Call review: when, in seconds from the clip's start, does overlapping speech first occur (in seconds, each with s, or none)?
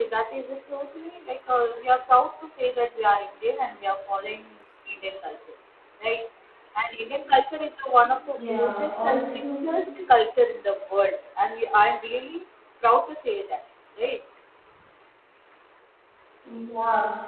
8.4 s